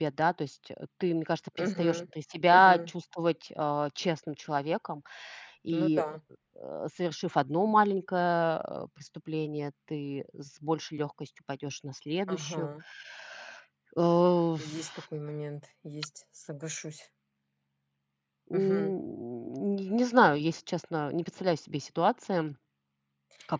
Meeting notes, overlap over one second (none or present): none